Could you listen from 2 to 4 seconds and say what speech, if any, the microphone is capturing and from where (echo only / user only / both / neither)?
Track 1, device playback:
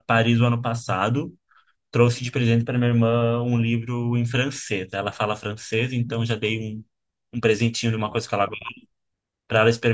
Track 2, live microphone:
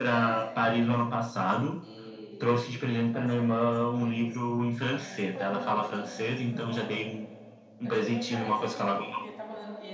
both